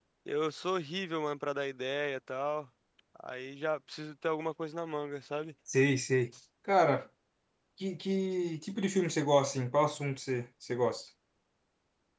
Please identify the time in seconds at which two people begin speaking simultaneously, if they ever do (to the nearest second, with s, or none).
none